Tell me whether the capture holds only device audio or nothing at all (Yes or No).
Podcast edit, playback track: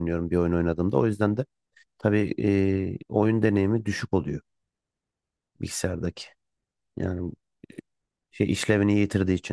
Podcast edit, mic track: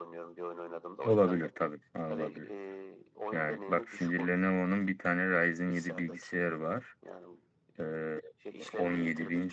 No